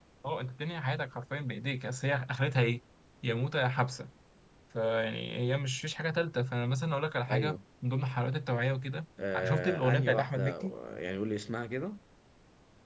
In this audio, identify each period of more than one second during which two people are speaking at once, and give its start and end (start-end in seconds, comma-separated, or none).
9.4-10.7